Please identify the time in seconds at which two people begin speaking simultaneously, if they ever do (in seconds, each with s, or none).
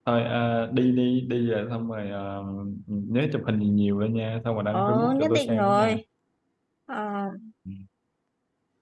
4.7 s